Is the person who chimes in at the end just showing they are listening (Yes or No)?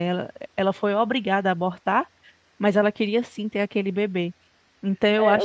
No